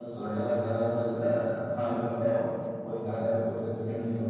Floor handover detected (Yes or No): Yes